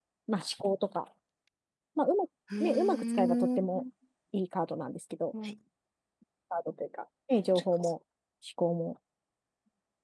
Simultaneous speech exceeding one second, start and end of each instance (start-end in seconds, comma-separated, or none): 2.6-3.8